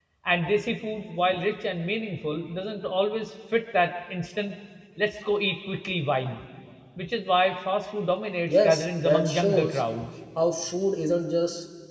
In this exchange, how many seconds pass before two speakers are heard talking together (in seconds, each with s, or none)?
8.5 s